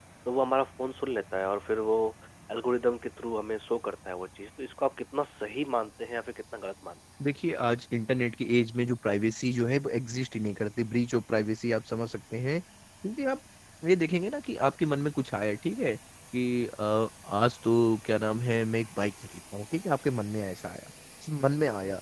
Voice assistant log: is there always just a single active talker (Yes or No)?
Yes